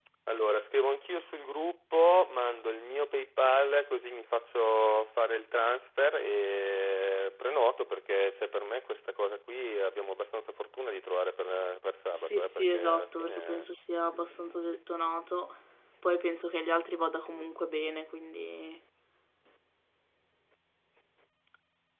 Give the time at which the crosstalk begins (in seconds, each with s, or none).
12.1 s